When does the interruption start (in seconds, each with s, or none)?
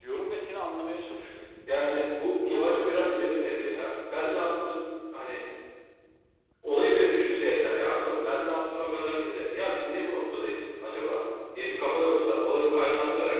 2.4 s